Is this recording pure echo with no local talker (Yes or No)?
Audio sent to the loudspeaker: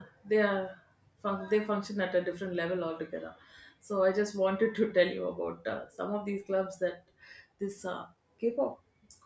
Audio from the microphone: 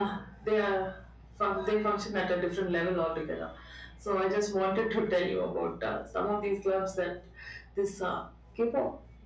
Yes